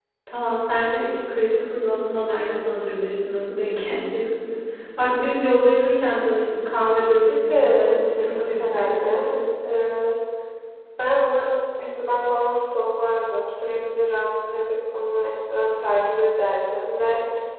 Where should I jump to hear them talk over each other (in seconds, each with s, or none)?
7.3 s